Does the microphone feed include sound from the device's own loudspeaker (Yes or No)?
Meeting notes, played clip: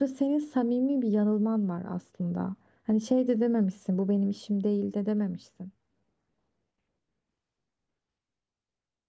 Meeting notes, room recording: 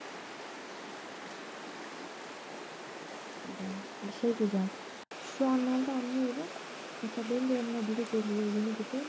No